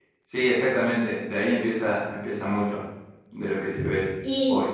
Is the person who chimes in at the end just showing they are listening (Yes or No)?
No